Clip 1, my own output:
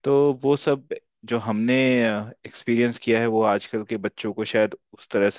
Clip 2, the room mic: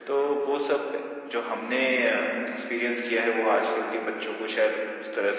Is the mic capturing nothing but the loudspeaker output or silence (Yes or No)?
Yes